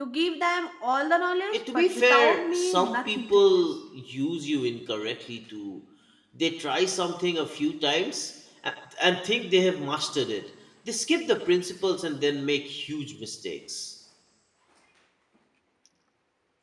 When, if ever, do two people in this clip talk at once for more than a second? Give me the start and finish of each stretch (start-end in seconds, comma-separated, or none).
1.5-3.8